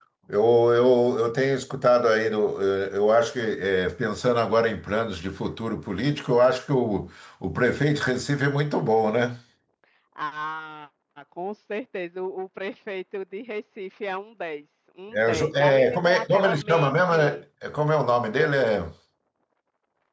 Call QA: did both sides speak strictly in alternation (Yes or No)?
No